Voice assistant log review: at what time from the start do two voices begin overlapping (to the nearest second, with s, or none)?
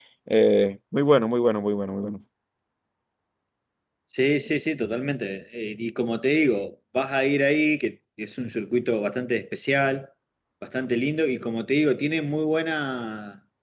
none